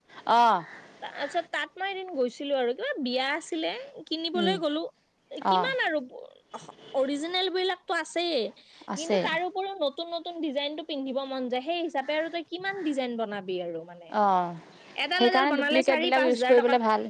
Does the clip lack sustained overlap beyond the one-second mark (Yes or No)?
No